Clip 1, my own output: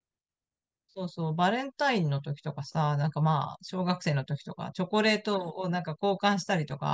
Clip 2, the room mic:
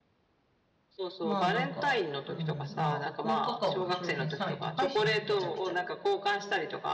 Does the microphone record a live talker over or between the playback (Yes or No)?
Yes